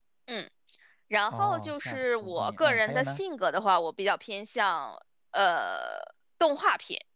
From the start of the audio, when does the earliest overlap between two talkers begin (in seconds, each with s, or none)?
1.3 s